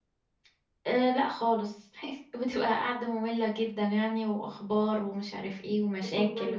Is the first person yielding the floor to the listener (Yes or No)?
Yes